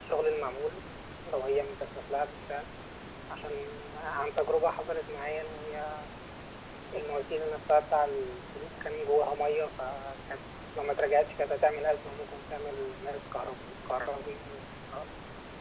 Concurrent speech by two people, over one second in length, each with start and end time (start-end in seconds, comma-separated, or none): none